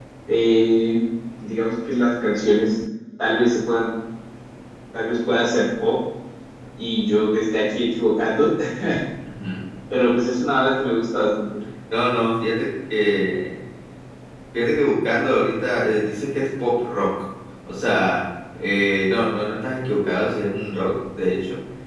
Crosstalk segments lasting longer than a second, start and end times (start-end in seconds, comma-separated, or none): none